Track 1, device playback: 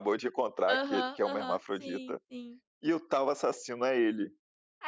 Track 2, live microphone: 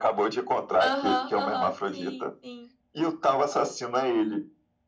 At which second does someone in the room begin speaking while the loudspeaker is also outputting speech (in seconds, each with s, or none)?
none